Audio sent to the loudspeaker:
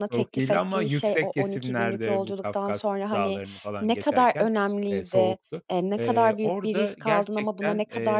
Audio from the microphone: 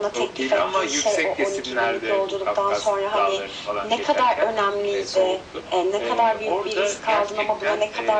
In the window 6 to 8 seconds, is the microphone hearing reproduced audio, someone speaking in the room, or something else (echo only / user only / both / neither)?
echo only